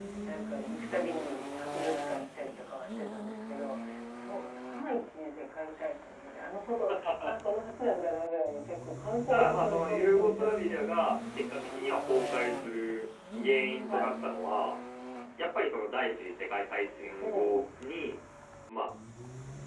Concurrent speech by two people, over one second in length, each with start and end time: 9.3-10.8

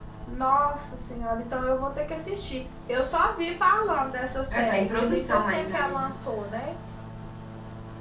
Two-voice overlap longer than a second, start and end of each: 4.5-6.1

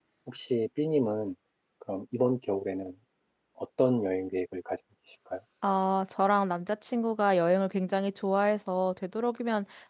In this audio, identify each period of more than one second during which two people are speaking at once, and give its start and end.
none

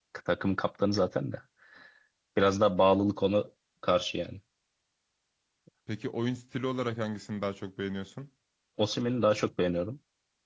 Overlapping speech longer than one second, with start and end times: none

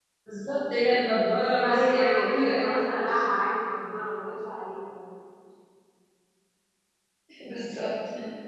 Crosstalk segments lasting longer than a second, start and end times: 1.6-2.8

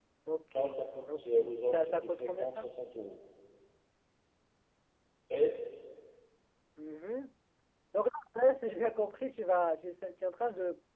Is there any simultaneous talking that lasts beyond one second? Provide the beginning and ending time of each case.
1.1-2.6

